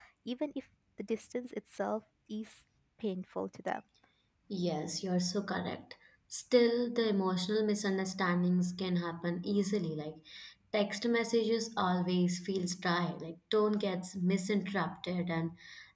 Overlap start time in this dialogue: none

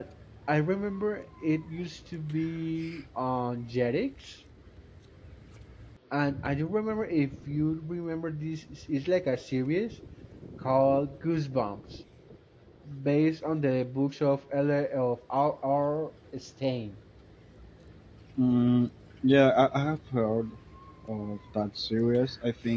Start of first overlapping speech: none

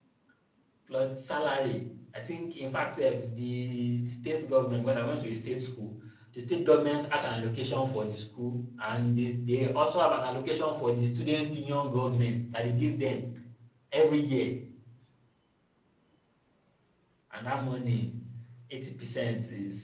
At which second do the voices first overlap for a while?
none

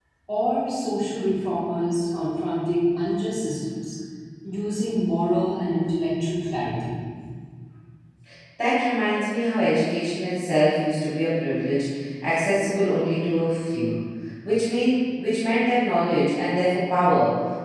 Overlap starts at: none

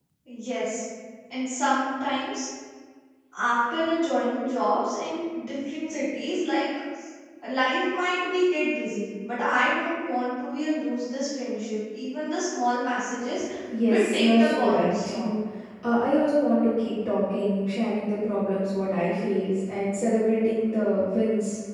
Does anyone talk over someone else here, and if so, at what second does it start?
13.8 s

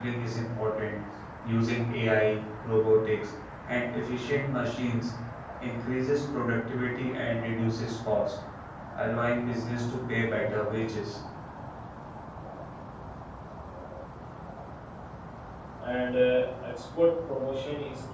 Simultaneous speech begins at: none

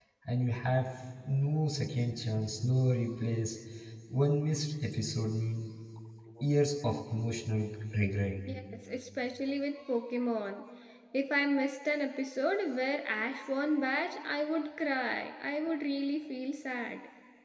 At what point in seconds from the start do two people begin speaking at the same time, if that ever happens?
none

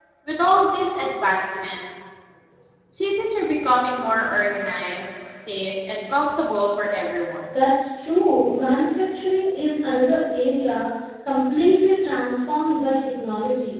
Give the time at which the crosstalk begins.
none

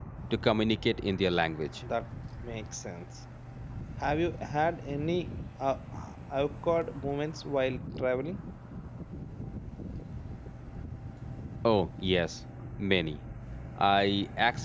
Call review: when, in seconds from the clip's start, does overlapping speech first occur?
none

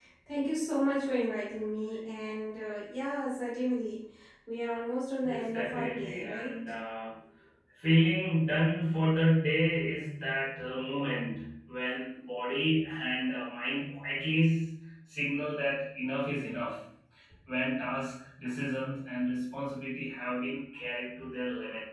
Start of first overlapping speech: 5.2 s

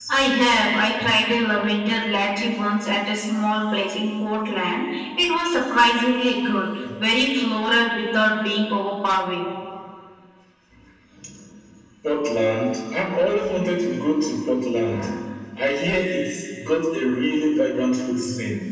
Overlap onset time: none

